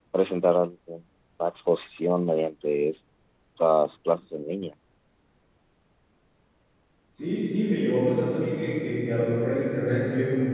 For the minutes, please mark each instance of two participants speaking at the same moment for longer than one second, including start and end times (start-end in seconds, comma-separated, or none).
none